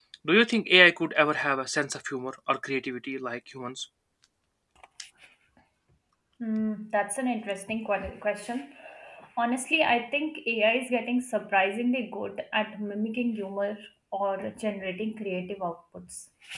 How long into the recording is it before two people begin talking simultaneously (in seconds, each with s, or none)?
none